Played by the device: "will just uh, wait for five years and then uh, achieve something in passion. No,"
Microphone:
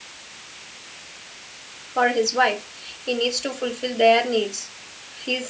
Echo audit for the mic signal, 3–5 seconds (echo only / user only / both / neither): user only